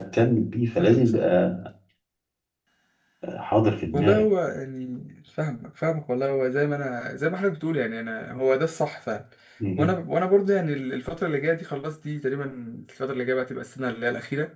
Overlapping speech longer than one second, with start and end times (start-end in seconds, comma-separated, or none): none